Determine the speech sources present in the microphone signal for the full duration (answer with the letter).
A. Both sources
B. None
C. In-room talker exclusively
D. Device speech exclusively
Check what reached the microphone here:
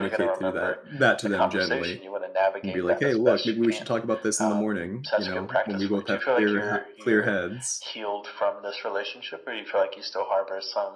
A